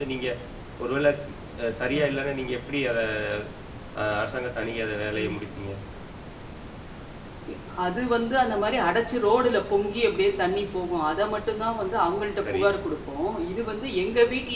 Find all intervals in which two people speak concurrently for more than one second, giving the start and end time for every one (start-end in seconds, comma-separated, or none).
none